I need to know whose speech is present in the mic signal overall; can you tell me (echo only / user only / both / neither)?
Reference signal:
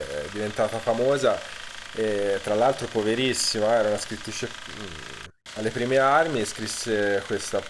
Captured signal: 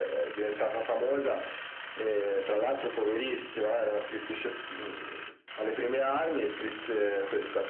echo only